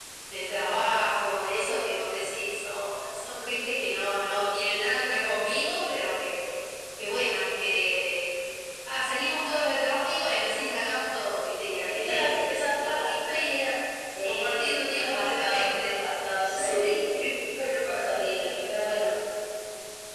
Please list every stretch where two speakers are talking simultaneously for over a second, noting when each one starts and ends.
11.8-13.2, 14.2-15.9

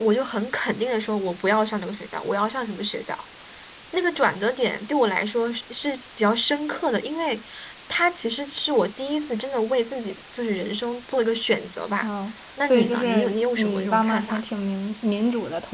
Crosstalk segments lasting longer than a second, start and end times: 12.6-14.4

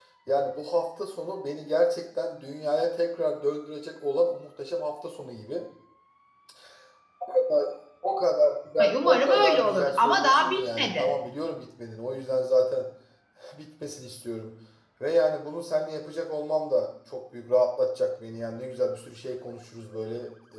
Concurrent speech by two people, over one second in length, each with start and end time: 9.0-11.1

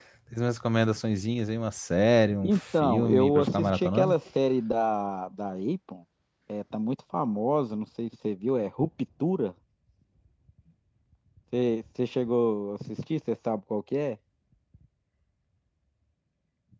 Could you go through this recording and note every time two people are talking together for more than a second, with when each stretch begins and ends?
2.5-4.2

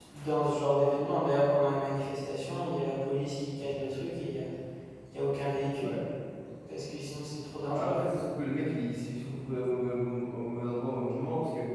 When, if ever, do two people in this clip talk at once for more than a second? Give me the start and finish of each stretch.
none

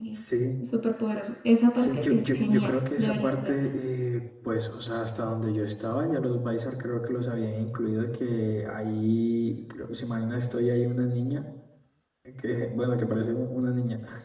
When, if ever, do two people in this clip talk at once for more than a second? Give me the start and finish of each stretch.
1.8-3.6

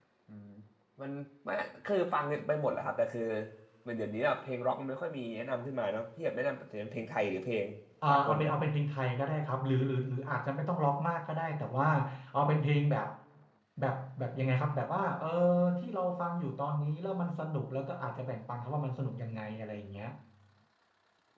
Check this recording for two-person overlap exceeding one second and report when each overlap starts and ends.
none

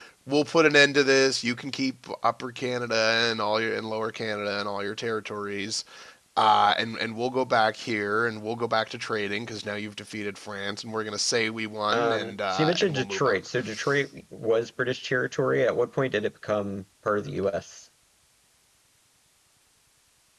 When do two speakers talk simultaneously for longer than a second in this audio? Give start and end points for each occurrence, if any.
11.9-13.4

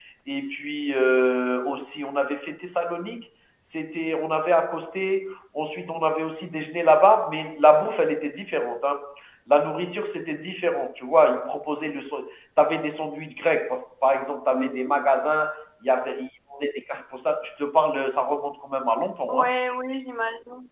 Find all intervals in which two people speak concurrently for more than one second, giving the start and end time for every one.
none

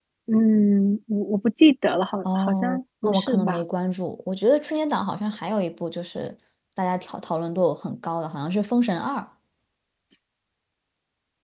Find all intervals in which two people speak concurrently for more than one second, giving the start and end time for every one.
2.3-3.6

